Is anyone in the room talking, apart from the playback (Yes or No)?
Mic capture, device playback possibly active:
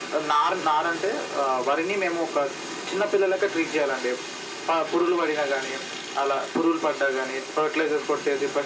No